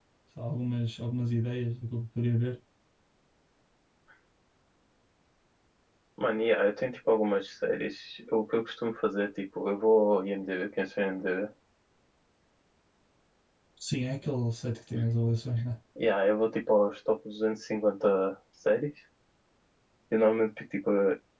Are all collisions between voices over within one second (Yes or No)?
Yes